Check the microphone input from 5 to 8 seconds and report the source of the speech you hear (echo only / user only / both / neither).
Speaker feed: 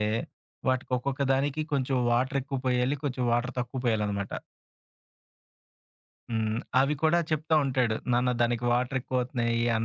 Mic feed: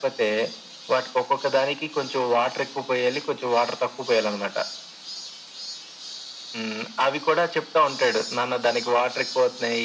echo only